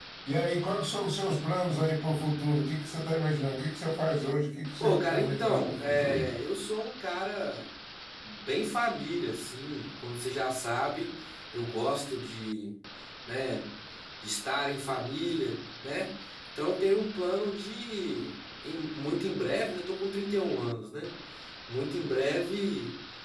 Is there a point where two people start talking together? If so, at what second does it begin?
5 s

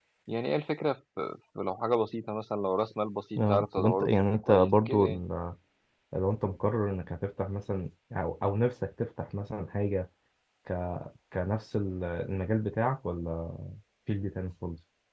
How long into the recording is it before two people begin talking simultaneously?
3 s

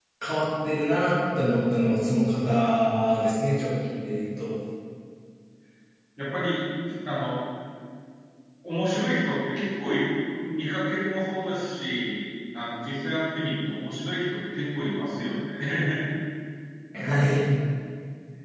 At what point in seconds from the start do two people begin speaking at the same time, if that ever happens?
none

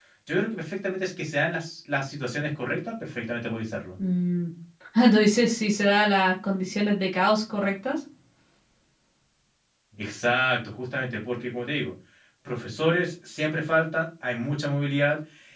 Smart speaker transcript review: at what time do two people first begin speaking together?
none

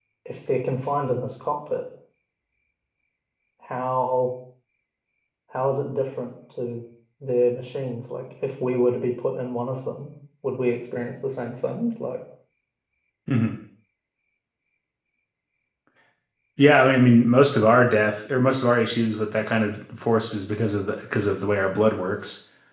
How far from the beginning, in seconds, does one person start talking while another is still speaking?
none

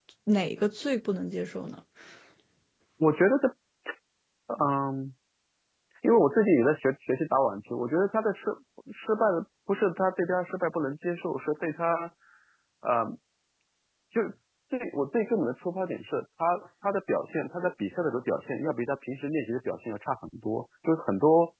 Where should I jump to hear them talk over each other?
none

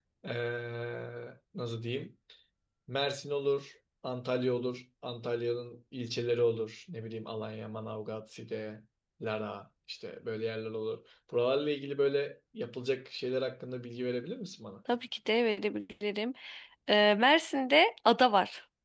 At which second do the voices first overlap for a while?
none

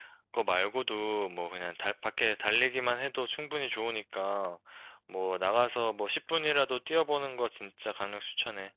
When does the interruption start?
none

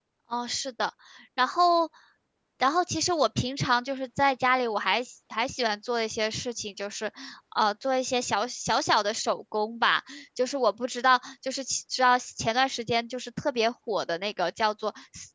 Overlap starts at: none

